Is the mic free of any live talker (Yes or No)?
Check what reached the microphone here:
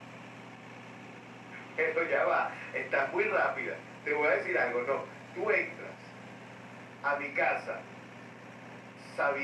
Yes